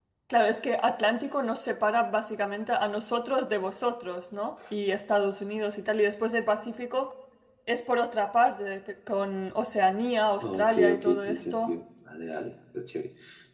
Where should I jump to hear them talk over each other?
10 s

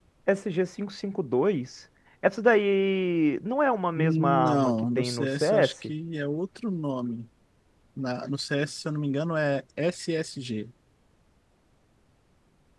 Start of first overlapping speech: 4 s

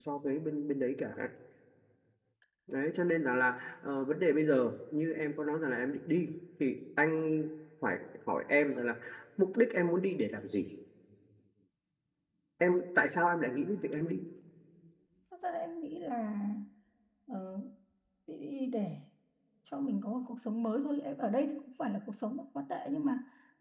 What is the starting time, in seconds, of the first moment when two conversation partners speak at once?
none

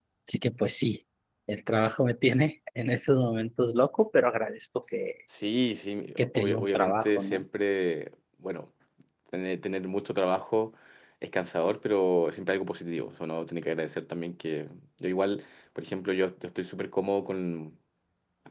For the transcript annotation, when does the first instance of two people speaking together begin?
6 s

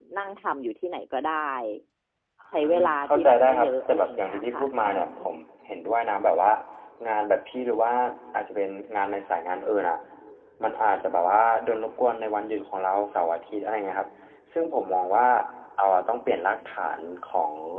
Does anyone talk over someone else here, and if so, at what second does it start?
3 s

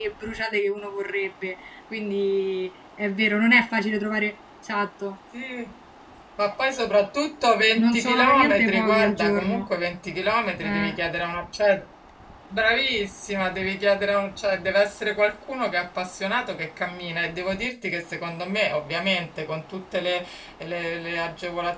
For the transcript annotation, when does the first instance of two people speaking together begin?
8 s

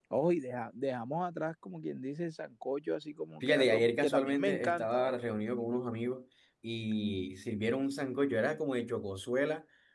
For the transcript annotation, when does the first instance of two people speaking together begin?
3 s

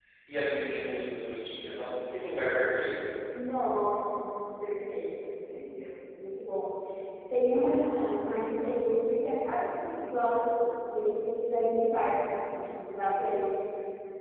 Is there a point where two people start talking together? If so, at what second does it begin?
none

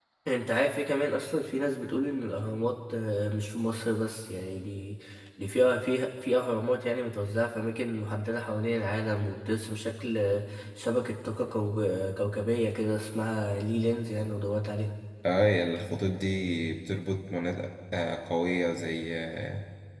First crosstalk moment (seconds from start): none

